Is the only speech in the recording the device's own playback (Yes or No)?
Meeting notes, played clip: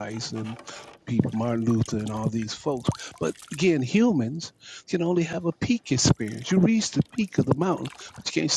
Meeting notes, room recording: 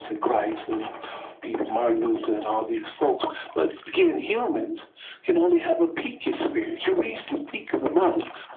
Yes